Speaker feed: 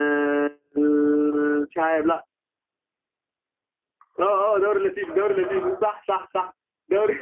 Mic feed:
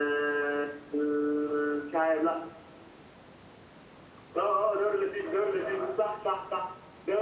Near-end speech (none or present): none